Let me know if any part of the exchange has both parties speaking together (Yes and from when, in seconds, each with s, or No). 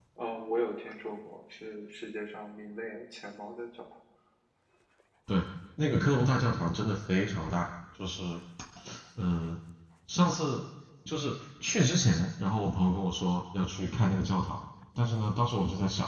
No